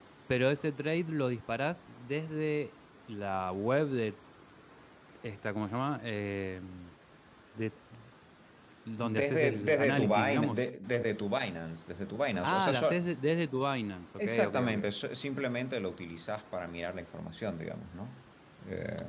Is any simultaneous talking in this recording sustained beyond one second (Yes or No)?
Yes